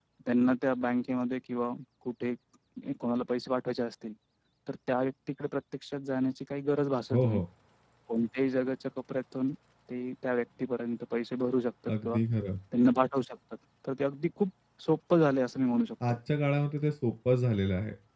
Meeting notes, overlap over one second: none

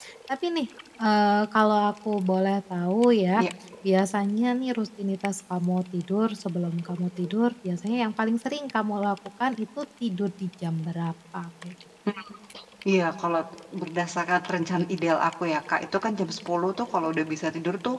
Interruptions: none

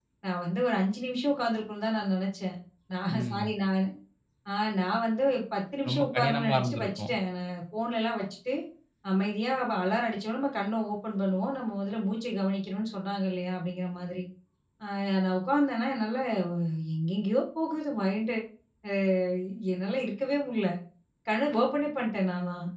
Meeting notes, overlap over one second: present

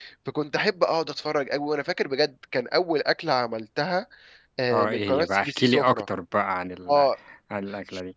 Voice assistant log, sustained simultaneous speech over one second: present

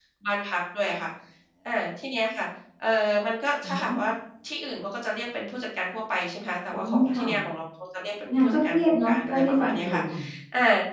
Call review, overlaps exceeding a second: present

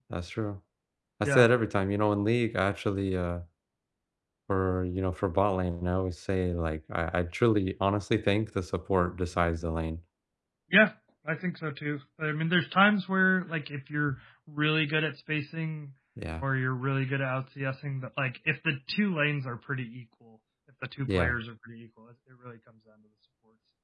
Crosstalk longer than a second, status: none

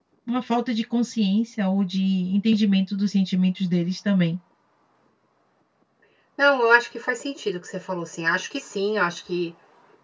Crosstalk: none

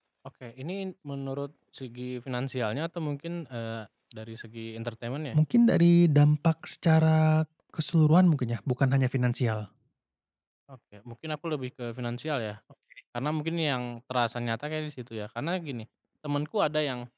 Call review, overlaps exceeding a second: none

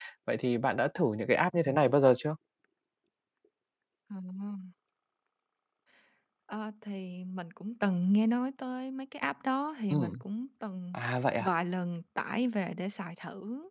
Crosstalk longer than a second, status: none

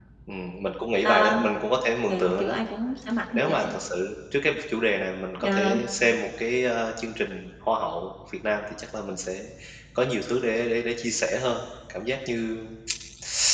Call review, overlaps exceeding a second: none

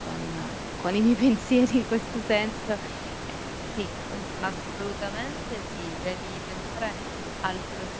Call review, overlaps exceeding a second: none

